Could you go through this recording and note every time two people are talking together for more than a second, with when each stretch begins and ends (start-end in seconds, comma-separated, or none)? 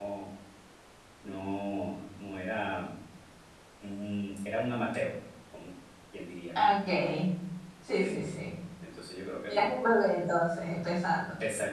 none